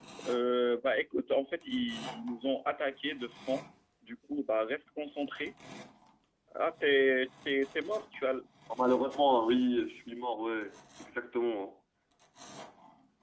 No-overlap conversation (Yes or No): Yes